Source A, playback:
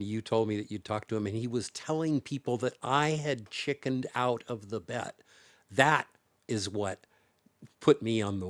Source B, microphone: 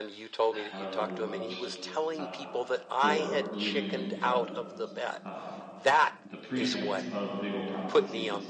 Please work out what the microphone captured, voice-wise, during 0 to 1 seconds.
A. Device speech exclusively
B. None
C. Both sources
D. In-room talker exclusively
C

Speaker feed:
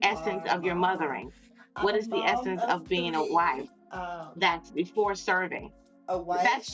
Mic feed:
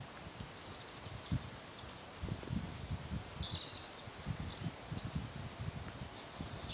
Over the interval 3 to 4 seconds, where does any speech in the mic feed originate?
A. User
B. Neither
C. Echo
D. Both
B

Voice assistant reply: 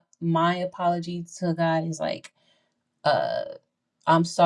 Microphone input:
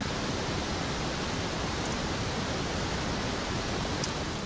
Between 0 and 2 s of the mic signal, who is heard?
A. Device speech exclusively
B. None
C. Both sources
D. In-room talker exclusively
B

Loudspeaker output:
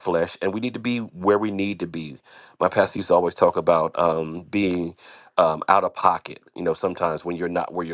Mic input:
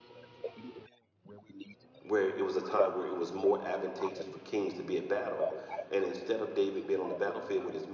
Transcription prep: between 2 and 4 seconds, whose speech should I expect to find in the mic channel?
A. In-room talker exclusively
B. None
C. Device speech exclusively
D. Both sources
D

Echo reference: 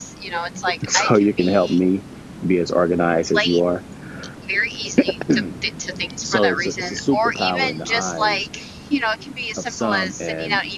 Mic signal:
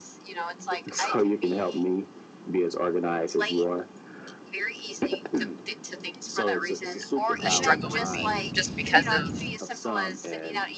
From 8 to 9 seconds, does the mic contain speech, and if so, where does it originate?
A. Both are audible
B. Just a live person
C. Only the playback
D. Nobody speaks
A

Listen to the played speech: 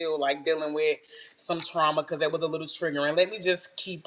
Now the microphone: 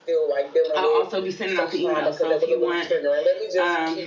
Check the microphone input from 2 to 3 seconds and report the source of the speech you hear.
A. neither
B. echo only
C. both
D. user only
C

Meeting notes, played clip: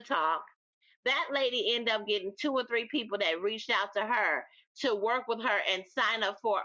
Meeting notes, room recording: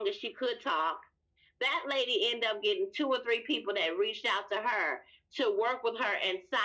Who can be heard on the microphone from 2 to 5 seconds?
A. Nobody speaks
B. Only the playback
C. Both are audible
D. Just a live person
B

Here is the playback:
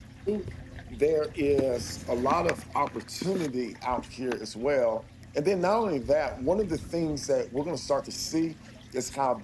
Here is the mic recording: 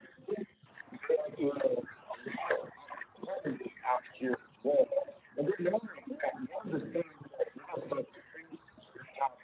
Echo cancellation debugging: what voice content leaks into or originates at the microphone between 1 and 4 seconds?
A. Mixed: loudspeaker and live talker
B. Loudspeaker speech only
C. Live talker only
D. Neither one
B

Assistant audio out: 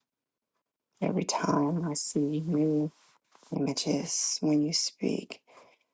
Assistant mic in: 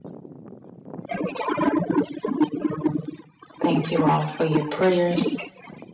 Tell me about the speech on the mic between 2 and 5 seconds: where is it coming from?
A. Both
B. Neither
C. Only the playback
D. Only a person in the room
A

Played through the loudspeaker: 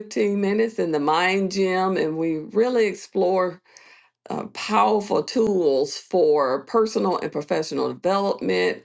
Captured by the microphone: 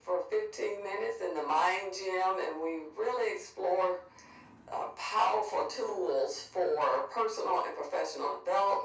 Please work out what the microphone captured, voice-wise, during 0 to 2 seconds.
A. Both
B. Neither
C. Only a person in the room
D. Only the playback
D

